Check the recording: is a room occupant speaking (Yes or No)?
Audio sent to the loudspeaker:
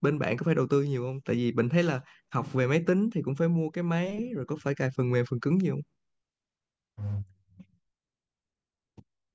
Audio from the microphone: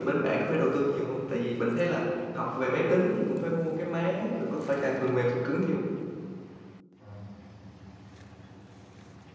No